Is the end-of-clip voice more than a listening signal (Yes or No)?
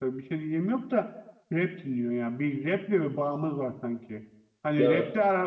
No